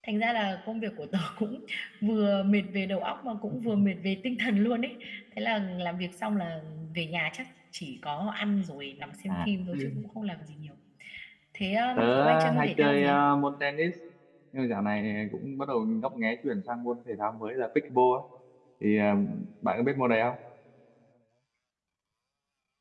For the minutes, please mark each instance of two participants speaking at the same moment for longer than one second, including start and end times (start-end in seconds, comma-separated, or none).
12.0-13.2